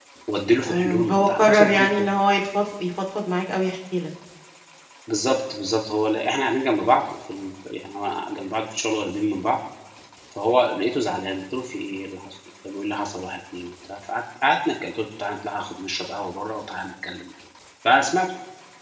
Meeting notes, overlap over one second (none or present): present